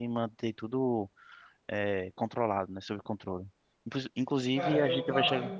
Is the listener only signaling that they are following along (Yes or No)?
No